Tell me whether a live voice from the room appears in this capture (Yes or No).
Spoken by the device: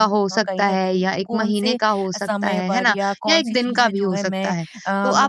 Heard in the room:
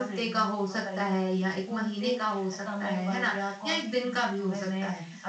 No